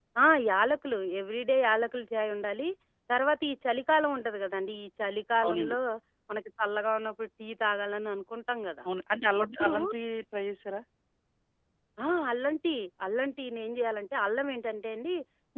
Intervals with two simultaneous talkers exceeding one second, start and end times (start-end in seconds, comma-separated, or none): none